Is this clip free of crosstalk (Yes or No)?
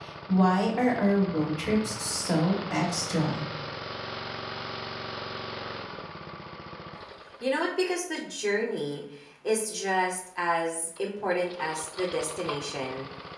Yes